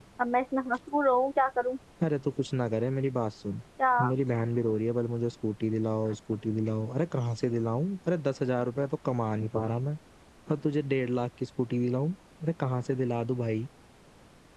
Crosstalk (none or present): none